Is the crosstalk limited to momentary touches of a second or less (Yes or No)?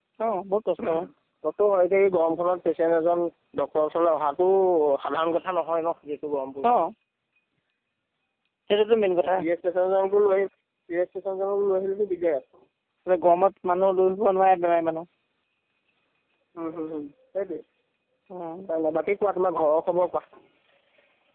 Yes